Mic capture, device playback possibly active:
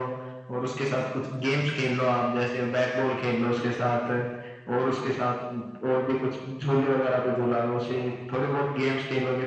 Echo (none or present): present